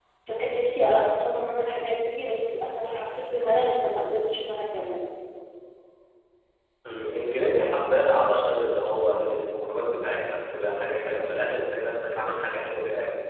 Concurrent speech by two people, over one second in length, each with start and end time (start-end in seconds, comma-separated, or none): none